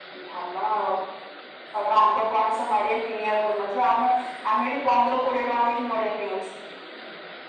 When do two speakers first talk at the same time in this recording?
none

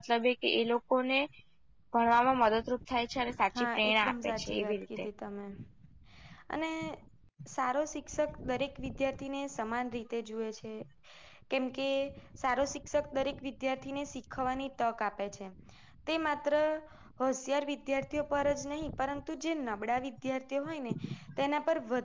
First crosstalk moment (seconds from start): 3.6 s

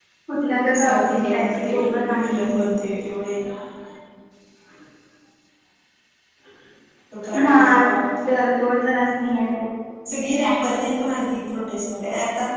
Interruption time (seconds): 0.8 s

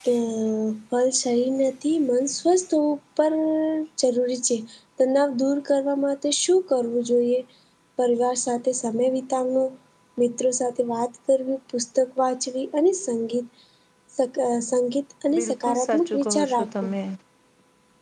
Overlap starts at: 15.3 s

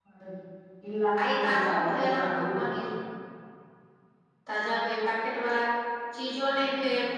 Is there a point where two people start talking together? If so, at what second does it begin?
1.4 s

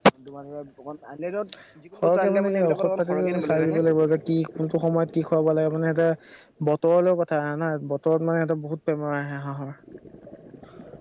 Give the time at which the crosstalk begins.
2.0 s

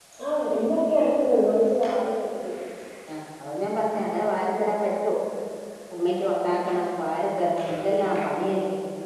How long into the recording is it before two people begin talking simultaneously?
none

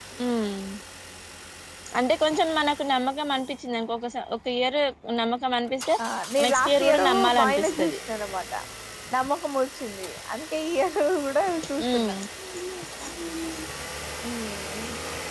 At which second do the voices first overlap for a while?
6.5 s

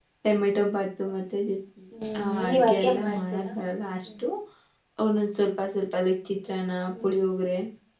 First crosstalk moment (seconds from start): 2.2 s

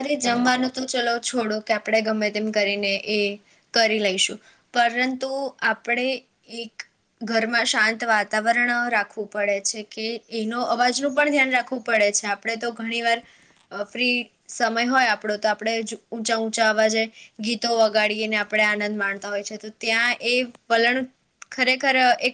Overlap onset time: none

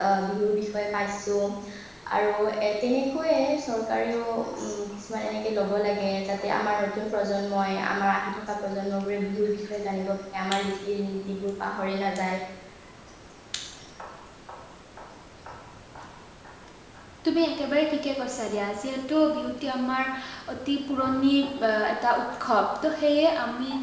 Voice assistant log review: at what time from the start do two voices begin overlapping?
none

